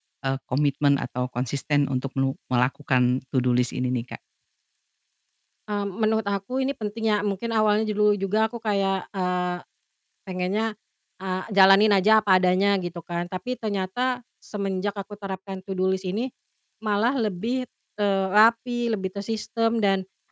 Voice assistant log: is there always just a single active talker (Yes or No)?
Yes